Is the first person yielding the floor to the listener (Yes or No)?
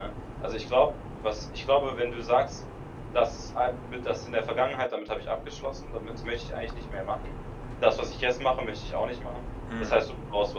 No